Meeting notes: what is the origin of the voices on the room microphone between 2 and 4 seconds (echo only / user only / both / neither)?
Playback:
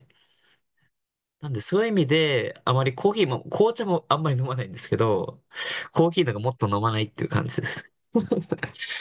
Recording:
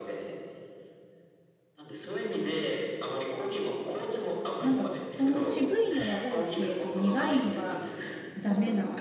echo only